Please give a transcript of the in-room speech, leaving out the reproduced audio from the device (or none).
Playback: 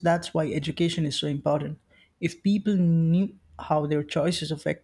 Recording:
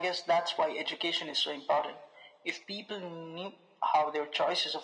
none